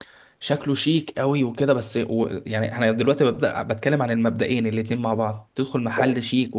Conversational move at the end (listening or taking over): listening